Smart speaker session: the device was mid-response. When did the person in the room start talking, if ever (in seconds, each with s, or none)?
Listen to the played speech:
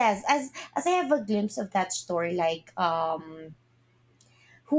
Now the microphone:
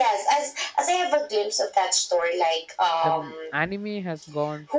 3.0 s